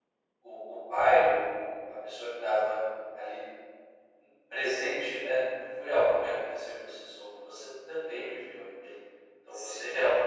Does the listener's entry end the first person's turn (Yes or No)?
No